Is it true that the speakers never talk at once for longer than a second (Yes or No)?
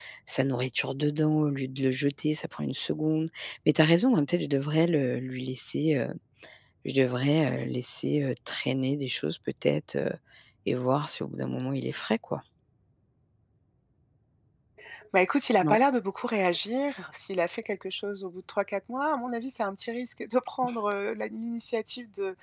Yes